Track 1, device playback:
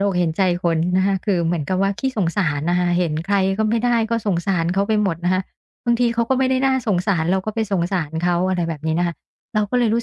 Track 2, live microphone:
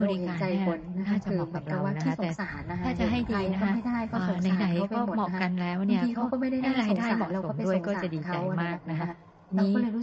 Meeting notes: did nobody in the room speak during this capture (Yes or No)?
No